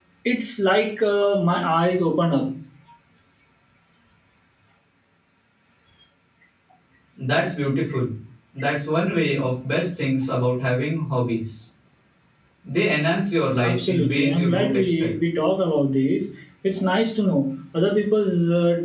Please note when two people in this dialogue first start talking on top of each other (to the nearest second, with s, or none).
14 s